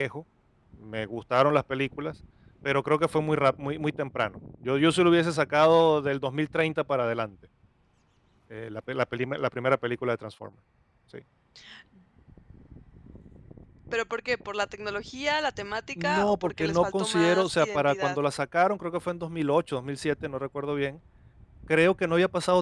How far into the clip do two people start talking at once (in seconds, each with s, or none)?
16.0 s